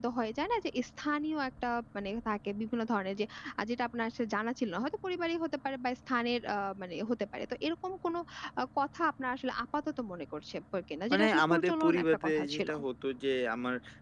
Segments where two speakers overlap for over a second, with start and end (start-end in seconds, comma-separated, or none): 11.1-12.7